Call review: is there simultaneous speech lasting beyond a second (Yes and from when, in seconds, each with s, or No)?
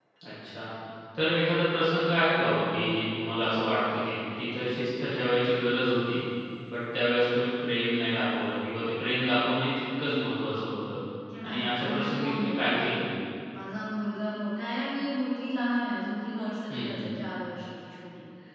Yes, from 11.4 s